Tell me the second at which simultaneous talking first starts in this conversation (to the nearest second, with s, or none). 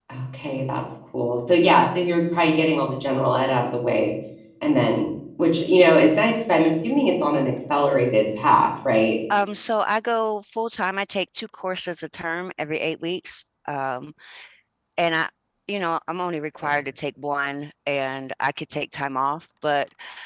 none